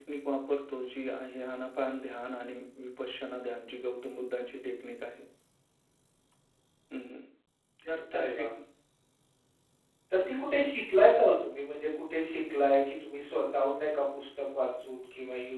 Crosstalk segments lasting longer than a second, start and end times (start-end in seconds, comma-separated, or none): none